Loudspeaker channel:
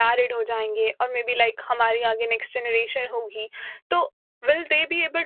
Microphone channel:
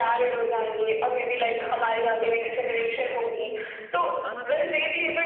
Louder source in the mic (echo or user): echo